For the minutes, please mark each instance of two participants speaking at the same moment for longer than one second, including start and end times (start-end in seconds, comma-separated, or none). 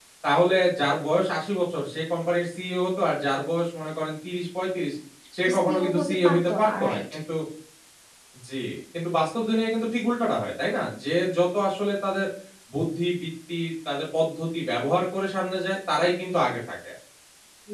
5.5-7.0